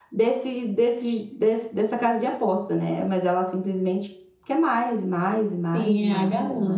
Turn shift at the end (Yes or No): Yes